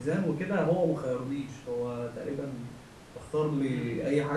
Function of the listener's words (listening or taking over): taking over